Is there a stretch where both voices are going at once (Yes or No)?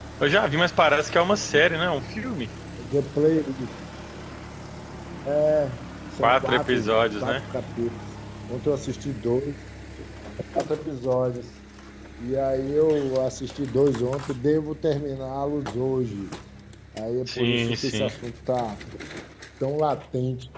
Yes